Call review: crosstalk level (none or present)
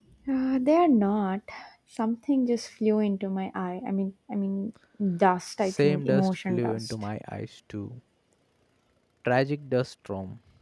present